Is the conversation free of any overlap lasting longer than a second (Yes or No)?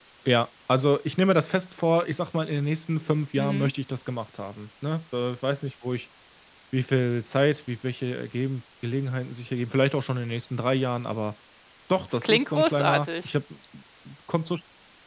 No